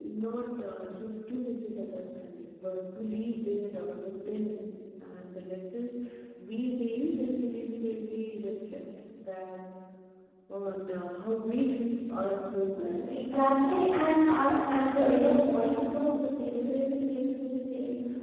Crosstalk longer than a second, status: none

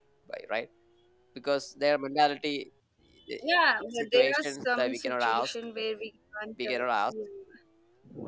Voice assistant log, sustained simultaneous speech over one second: present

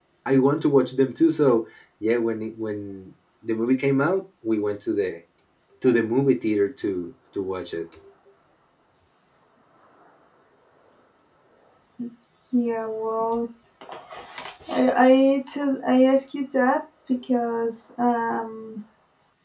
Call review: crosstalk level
none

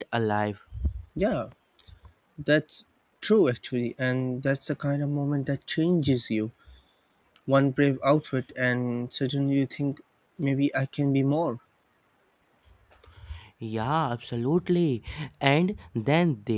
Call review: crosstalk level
none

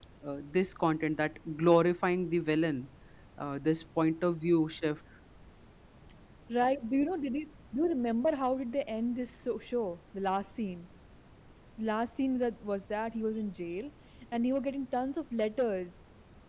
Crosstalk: none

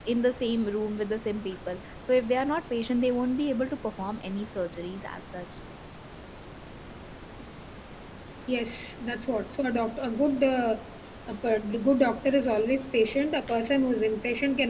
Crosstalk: none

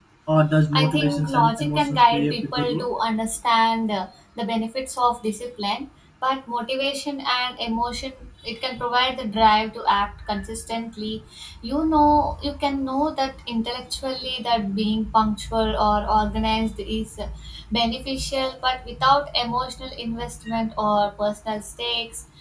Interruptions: present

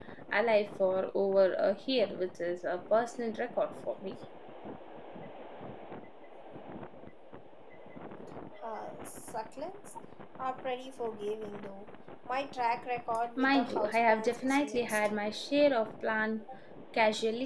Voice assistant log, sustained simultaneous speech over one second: present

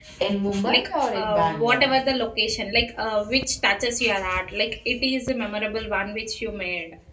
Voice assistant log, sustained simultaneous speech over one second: present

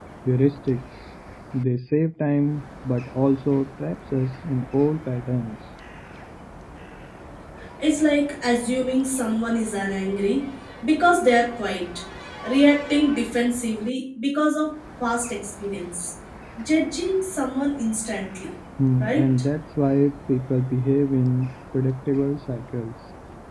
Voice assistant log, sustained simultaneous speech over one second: none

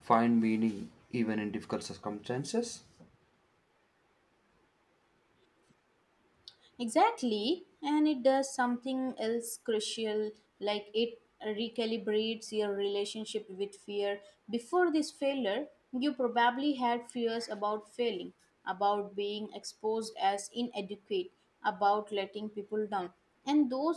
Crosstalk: none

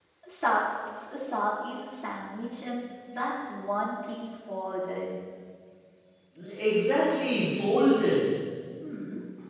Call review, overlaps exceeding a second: none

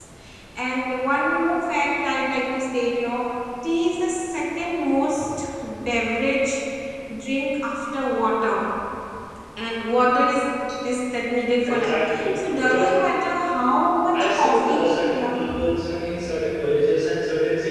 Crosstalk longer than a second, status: present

